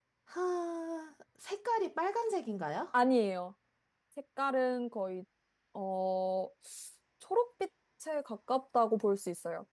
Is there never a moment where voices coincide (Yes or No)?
Yes